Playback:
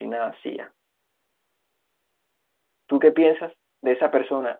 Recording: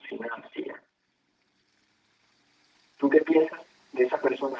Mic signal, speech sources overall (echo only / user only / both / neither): echo only